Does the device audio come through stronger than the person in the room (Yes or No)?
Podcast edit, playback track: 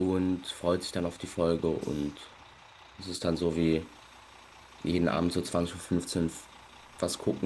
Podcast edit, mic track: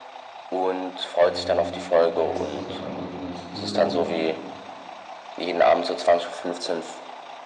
Yes